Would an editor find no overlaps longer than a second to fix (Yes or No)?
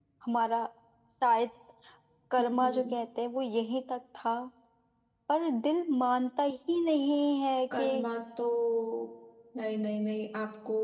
Yes